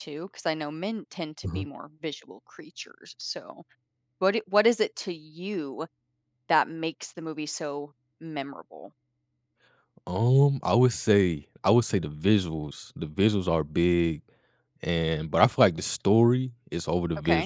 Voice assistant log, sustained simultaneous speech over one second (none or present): none